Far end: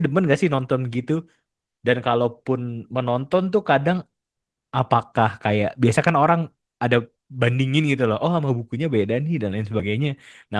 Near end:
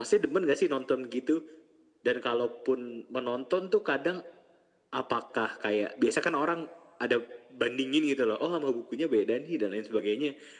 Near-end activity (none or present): none